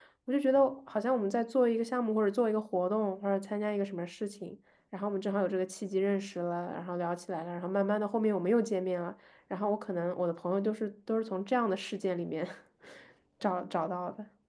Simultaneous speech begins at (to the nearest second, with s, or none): none